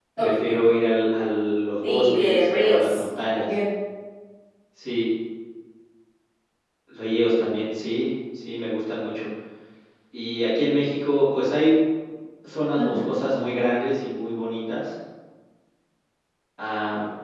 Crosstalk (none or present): present